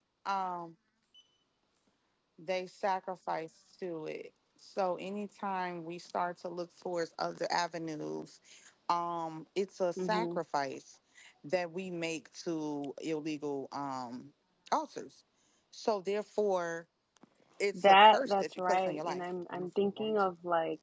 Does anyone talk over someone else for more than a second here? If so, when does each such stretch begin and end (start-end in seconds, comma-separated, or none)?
17.7-19.2